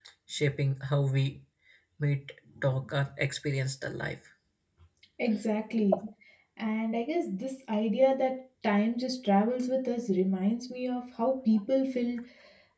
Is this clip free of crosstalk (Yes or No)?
Yes